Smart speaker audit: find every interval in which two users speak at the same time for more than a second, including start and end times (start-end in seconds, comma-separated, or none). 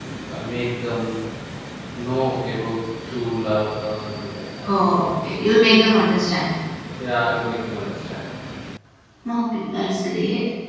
none